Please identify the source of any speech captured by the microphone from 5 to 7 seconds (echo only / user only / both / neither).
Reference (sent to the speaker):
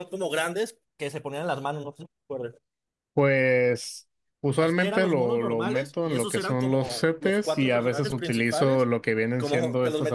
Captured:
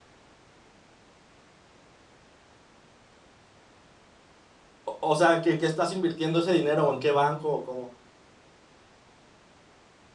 user only